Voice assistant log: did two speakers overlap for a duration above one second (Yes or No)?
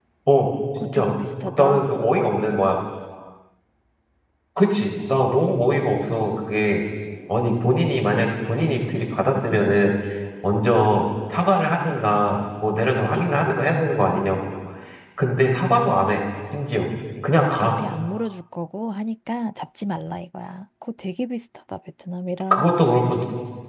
No